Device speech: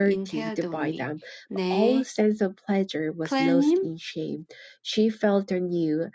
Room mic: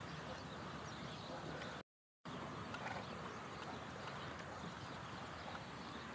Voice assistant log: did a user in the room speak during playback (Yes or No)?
No